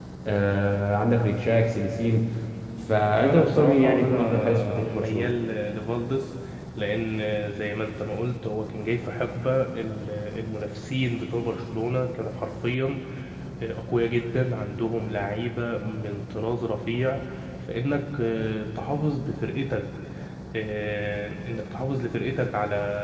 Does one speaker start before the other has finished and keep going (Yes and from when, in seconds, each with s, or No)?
Yes, from 3.2 s